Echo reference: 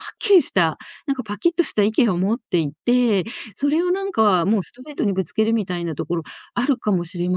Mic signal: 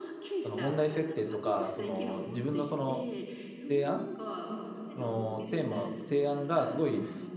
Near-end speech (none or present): present